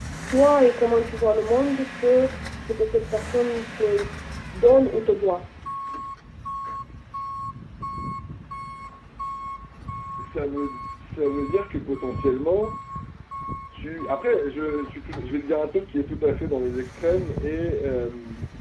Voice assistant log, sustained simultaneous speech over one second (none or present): none